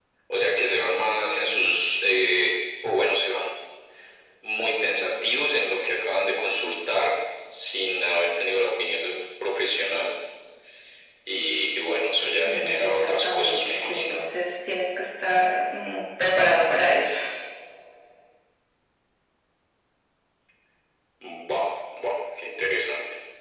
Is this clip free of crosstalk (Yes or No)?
No